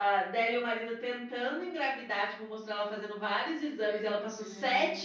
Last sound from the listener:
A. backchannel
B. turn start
A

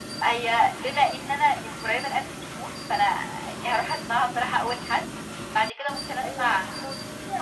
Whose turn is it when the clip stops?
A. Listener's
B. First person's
A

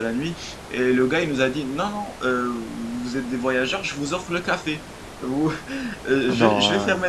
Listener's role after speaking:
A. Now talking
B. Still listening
B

